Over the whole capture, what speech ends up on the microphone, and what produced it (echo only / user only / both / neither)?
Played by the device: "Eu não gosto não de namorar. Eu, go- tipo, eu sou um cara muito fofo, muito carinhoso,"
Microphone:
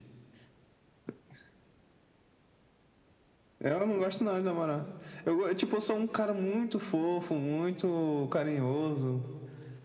echo only